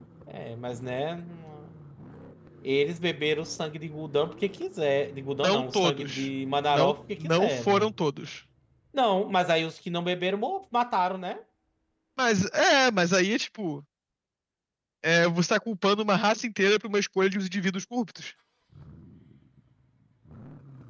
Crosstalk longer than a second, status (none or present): present